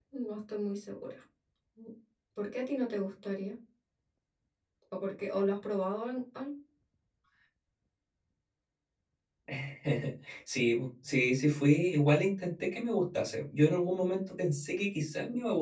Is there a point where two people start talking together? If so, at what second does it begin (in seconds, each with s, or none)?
none